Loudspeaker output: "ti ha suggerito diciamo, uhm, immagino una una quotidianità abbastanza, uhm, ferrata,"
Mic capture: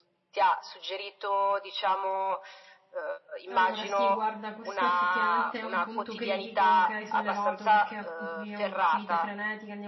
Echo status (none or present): present